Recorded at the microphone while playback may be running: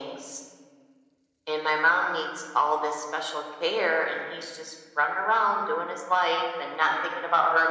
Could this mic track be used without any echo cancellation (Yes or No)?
No